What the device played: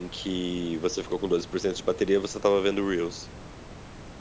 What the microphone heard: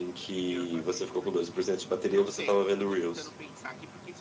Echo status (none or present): present